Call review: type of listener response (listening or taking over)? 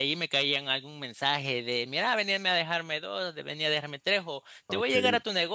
listening